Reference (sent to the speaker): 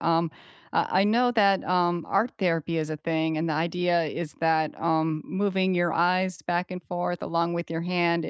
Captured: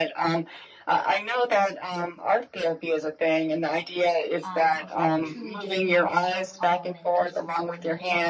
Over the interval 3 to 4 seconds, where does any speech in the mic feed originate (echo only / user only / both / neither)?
echo only